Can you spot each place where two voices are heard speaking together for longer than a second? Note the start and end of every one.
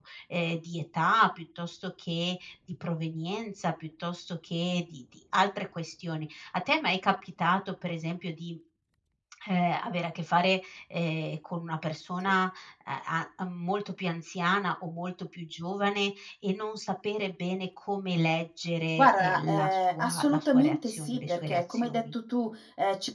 19.0-22.1

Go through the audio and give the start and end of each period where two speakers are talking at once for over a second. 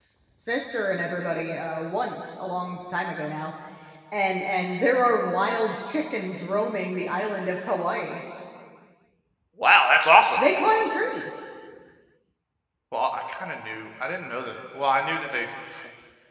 none

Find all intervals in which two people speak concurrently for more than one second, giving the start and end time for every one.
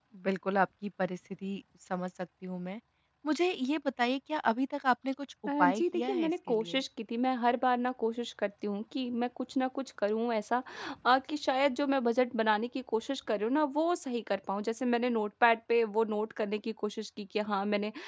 5.6-6.8

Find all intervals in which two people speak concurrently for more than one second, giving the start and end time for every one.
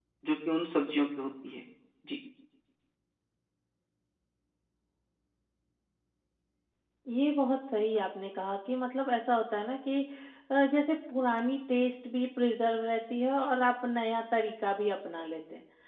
none

